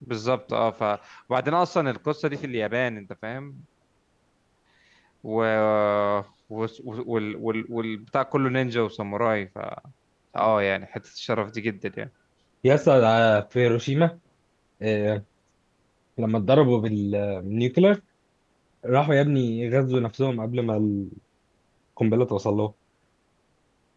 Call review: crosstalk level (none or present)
none